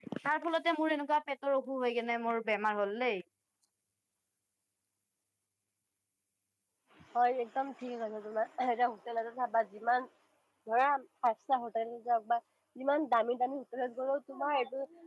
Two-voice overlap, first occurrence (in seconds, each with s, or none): none